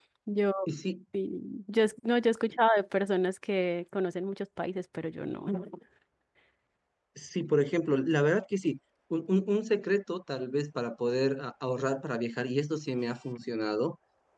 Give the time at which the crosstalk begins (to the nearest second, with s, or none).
none